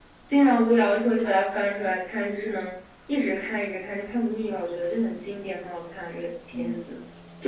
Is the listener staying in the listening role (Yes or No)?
No